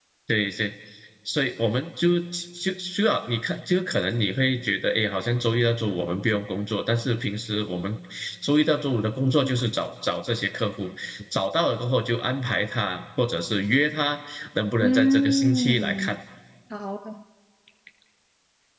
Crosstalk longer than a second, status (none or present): present